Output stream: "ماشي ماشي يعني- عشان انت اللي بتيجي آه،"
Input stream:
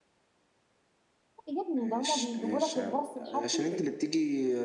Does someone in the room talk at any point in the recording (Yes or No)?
Yes